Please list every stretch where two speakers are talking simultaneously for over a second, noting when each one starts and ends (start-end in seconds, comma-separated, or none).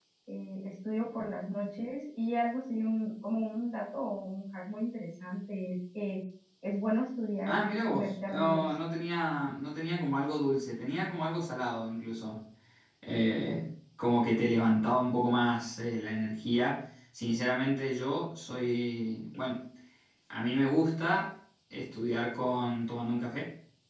7.5-8.7